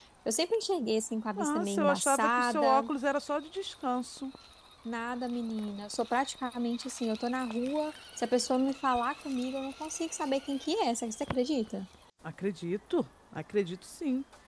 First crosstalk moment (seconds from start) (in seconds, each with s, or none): 1.4 s